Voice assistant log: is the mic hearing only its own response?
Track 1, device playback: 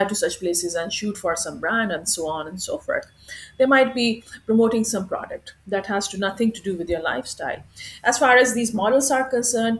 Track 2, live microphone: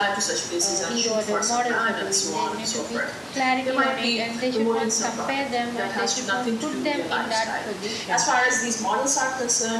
No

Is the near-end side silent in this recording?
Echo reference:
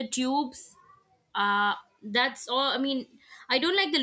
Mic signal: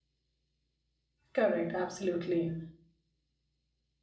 No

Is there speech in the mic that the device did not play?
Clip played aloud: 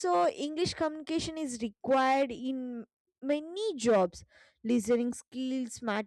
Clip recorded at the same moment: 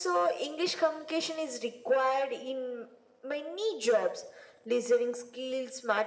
No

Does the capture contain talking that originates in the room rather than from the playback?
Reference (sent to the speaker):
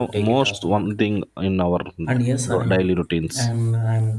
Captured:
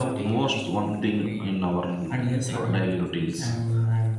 Yes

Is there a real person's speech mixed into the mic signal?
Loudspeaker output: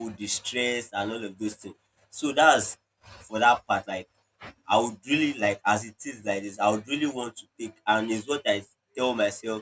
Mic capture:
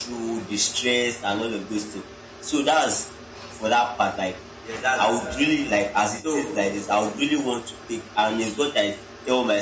Yes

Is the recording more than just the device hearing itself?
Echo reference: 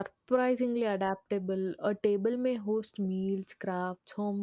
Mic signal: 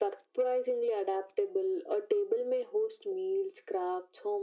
No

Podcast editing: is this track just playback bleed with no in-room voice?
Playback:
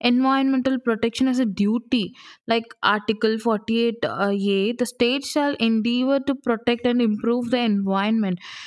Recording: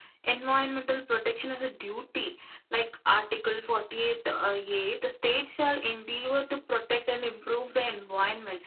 Yes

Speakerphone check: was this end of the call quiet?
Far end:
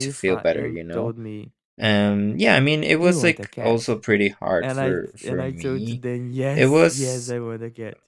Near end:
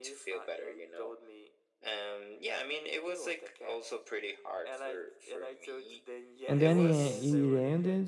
No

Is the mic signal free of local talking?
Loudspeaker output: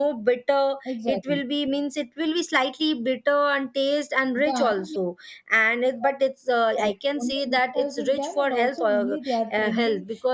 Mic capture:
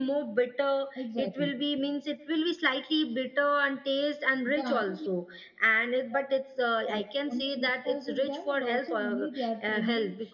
Yes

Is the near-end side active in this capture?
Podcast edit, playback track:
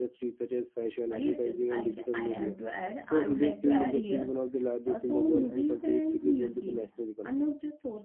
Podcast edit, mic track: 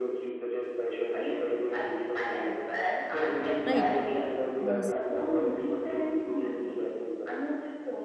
Yes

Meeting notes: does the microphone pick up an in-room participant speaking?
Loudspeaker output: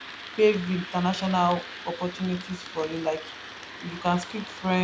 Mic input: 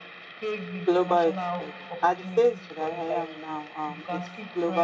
Yes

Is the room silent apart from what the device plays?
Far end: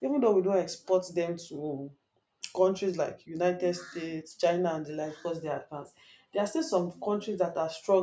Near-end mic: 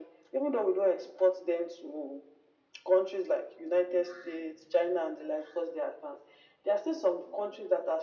Yes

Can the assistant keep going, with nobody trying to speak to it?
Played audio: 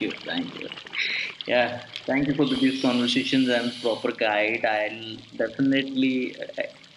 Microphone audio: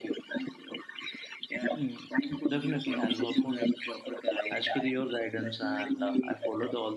No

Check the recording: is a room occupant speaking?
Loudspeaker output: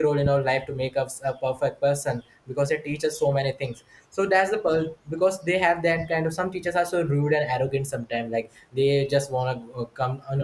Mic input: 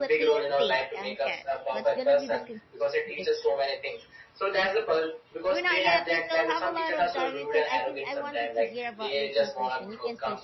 Yes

